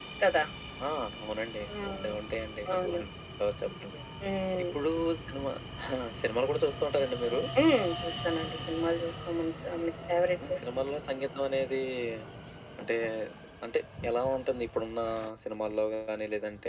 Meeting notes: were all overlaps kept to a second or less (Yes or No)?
Yes